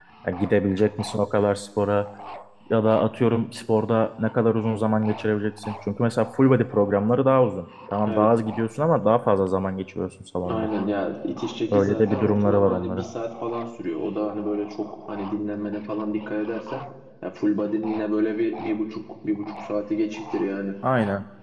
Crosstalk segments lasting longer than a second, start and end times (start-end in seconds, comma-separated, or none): 11.7-13.0